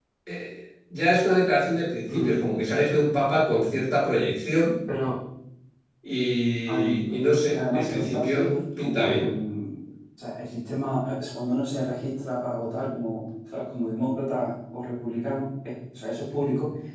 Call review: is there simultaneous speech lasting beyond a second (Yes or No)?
Yes